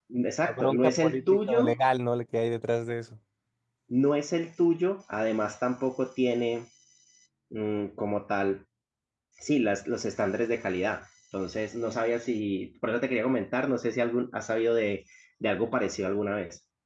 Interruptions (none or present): present